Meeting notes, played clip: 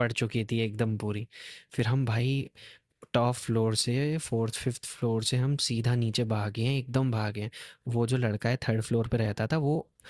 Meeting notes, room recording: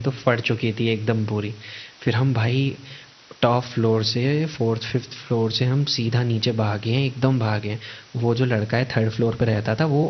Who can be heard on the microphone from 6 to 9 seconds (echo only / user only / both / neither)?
echo only